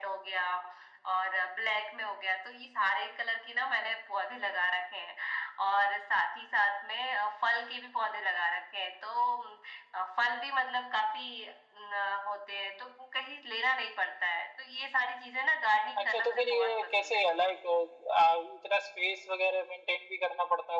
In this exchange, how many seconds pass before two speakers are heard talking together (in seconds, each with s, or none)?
16.0 s